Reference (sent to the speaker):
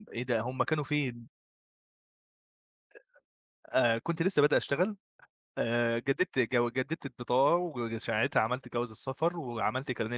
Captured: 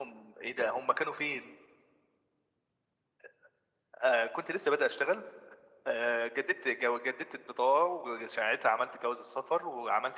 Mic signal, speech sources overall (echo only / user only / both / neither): echo only